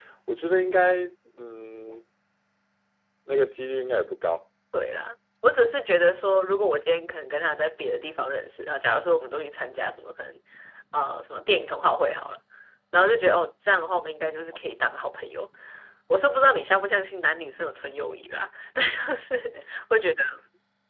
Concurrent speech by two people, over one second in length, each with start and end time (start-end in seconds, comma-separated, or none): none